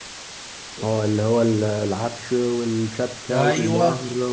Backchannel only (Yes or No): No